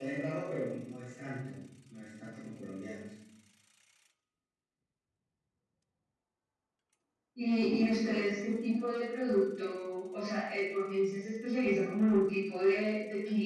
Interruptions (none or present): none